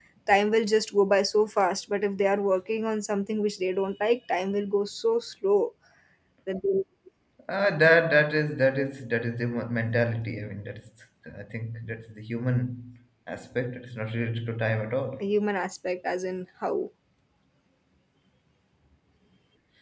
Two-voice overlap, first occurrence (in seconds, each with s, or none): none